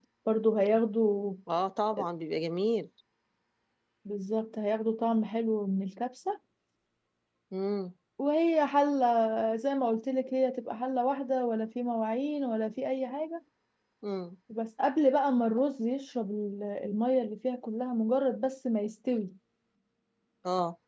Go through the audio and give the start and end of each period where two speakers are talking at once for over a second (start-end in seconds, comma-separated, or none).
none